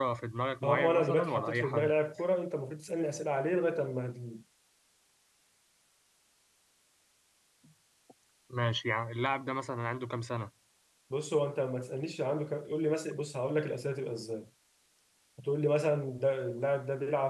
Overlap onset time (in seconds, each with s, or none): 0.6 s